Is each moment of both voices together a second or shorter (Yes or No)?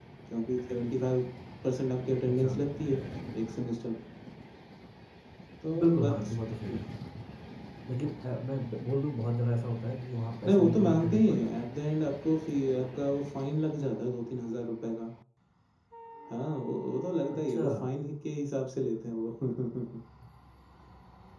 No